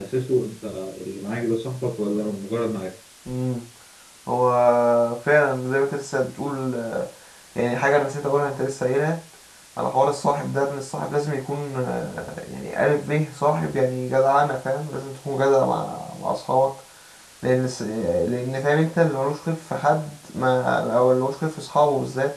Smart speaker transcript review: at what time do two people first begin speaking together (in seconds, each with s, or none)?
none